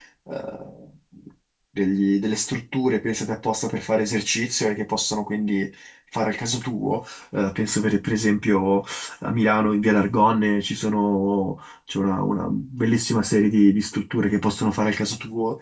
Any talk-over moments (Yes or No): No